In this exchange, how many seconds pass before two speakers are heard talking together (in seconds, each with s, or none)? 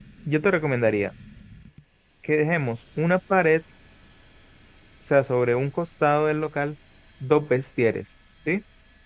none